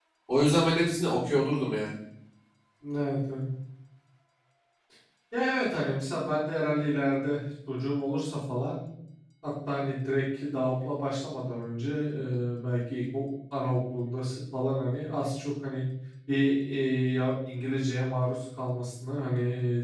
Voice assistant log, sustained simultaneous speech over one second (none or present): none